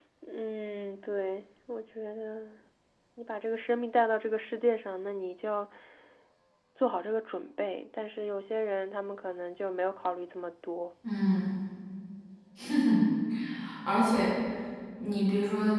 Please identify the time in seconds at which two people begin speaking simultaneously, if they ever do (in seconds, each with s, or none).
none